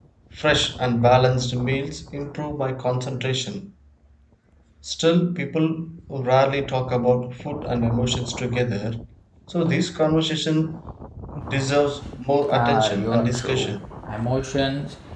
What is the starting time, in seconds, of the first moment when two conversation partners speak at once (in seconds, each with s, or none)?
12.5 s